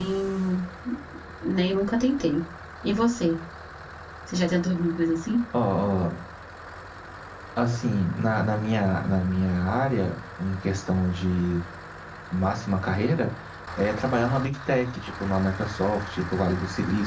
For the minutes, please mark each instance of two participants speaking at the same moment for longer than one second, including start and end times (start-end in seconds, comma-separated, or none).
none